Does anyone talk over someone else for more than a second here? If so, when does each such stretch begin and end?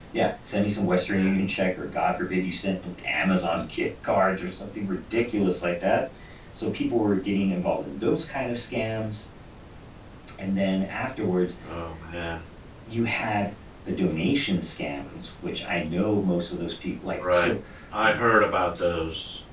none

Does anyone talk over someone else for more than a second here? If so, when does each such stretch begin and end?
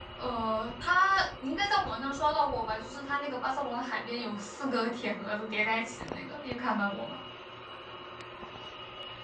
none

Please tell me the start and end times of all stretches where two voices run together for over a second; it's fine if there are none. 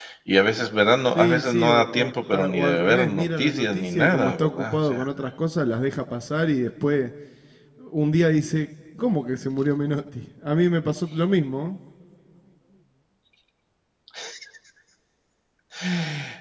1.2-5.0

